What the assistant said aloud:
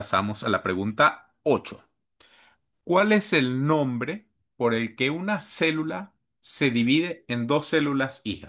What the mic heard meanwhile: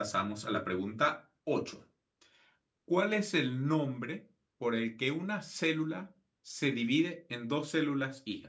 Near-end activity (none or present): none